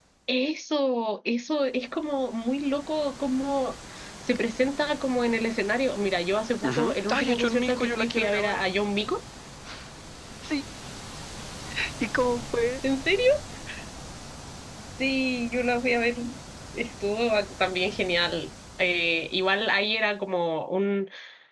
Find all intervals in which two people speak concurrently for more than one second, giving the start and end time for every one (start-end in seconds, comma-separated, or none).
6.7-8.6